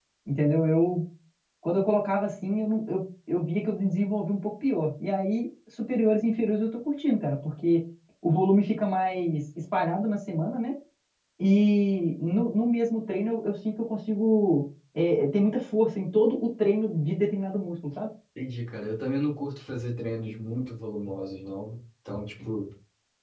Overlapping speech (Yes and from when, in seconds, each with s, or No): No